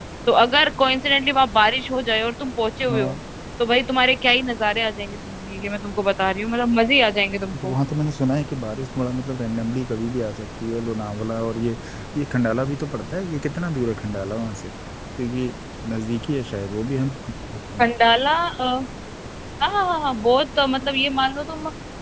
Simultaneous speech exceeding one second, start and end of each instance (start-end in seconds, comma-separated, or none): none